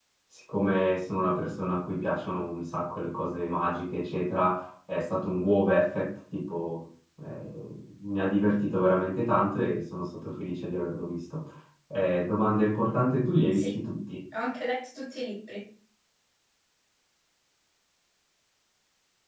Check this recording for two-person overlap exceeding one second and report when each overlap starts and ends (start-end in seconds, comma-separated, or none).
none